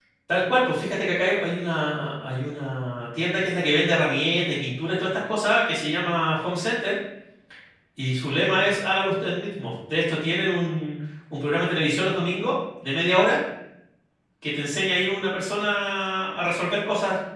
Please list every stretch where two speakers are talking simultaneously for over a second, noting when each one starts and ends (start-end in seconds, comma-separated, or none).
none